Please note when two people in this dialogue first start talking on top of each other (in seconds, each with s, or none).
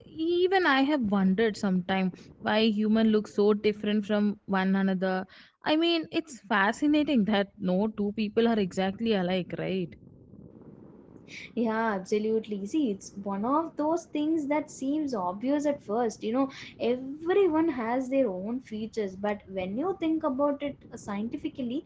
none